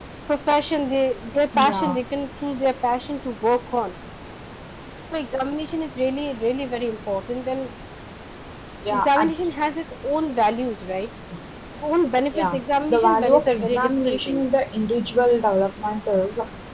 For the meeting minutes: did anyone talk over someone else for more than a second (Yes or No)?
Yes